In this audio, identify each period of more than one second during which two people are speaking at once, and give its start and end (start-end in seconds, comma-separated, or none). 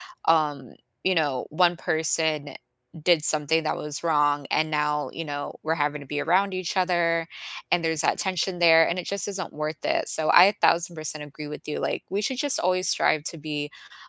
none